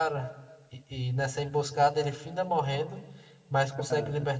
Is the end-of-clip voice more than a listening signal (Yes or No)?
No